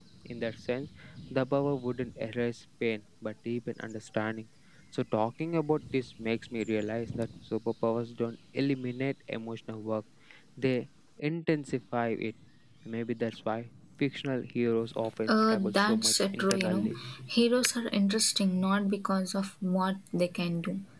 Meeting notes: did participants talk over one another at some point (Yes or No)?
Yes